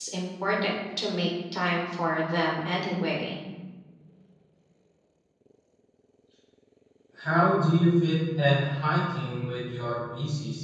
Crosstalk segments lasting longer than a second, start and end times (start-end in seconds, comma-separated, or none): none